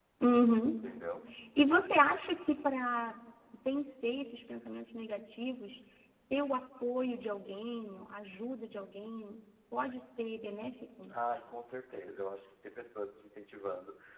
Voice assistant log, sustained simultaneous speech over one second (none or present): none